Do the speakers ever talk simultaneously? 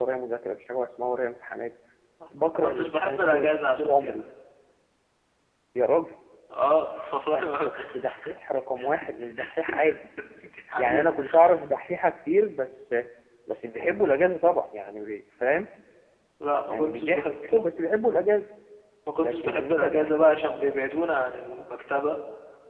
Yes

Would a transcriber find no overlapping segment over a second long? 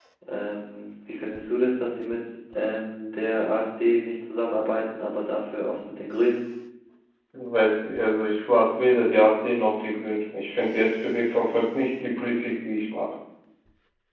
Yes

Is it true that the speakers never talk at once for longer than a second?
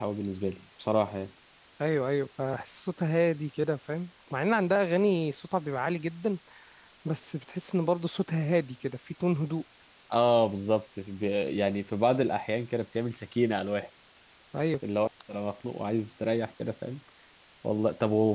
Yes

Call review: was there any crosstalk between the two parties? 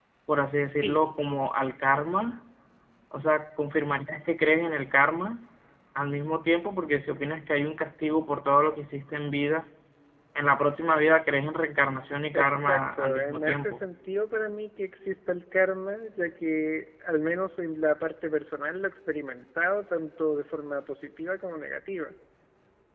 Yes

